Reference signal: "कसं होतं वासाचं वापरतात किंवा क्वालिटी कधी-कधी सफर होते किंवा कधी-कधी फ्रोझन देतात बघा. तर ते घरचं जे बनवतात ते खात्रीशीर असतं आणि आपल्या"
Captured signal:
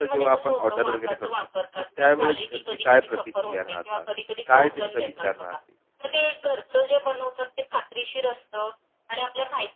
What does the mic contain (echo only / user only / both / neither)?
both